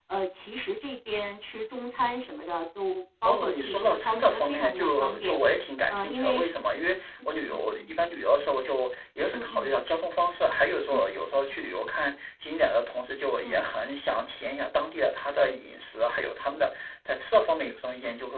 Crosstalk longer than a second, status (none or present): present